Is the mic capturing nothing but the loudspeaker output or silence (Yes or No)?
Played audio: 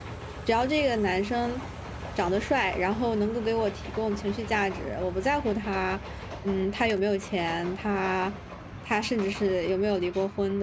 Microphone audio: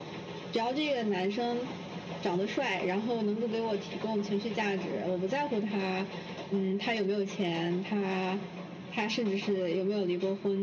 Yes